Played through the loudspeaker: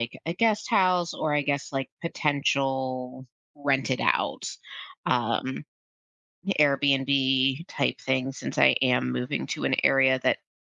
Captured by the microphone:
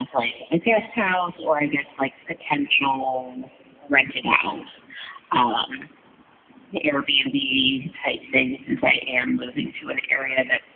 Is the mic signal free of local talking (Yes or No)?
Yes